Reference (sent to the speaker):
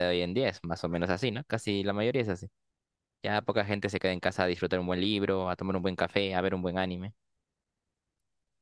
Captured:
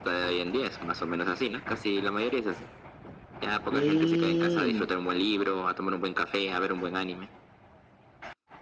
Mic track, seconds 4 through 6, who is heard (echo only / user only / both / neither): both